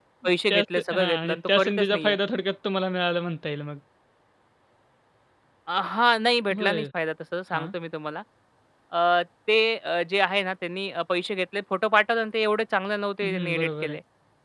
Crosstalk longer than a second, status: present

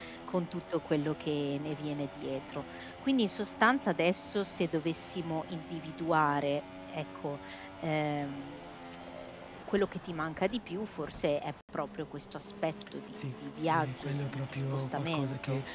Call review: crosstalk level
present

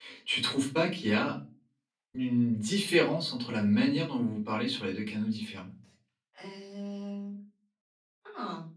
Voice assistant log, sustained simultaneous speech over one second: none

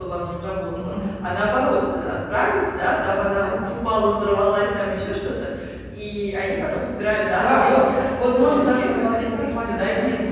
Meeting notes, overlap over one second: present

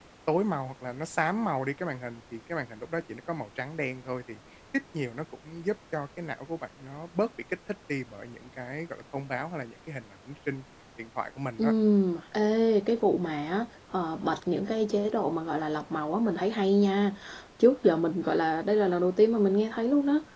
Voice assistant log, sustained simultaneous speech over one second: none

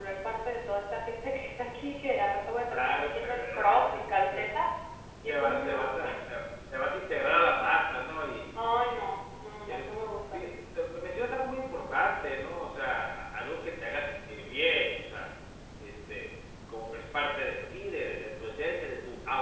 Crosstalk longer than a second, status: present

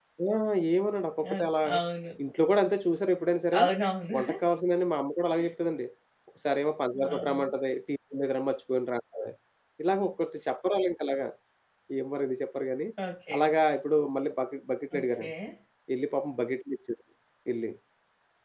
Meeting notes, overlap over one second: none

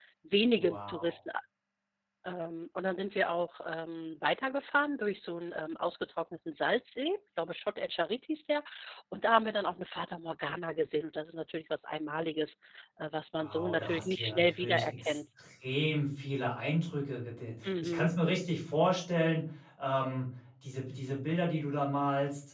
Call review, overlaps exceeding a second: present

